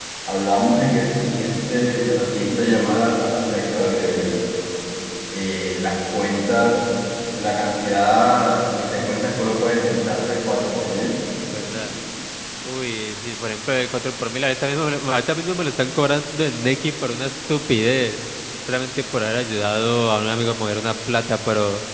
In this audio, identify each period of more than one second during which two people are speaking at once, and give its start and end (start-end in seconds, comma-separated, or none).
none